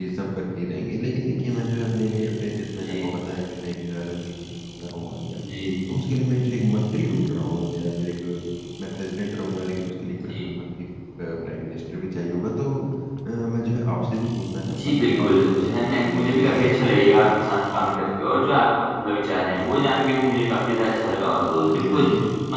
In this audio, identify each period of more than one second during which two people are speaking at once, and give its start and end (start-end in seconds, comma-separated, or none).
14.7-16.8